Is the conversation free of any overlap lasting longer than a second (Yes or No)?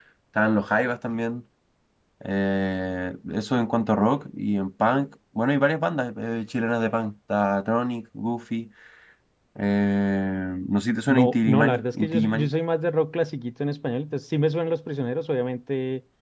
No